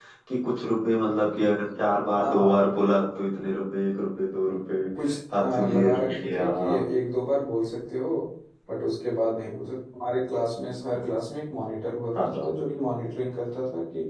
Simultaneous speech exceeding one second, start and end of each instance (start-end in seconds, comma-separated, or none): 5.3-6.6